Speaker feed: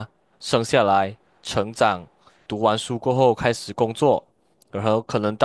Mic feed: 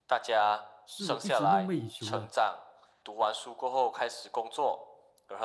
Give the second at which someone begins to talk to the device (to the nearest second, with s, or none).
1 s